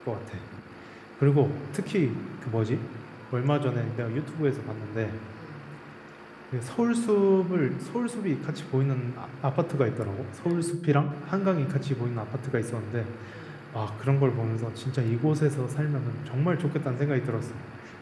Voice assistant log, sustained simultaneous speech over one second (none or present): none